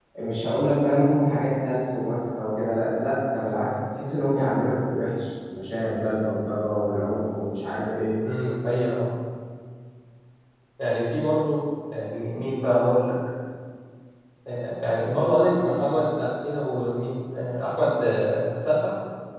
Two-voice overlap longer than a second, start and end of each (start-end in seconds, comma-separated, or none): none